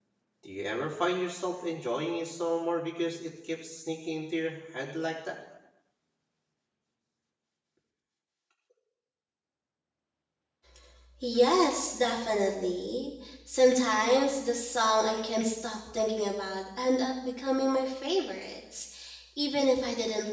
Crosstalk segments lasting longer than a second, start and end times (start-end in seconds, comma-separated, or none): none